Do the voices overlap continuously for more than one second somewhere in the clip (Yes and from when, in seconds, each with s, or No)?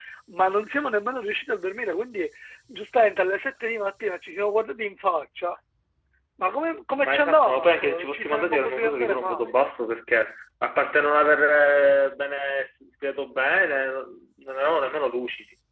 Yes, from 7.0 s